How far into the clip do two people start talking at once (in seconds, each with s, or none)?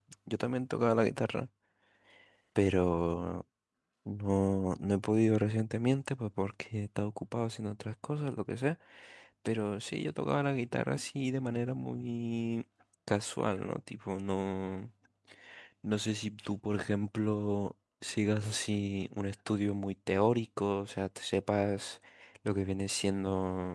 none